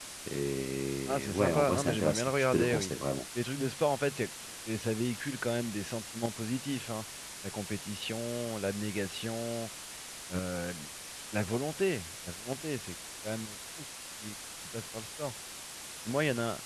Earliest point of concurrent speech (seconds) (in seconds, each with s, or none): 1.1 s